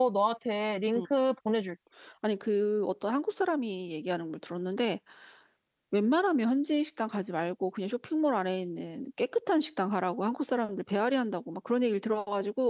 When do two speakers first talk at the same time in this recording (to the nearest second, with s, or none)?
none